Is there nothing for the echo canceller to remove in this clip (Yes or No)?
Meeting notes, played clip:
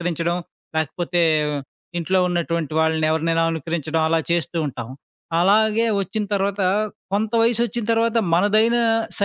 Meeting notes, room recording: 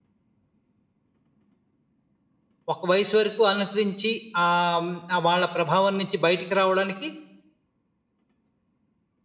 Yes